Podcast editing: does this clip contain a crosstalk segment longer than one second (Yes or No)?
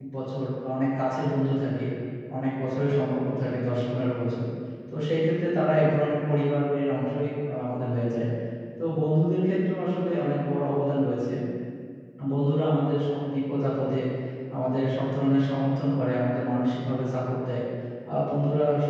No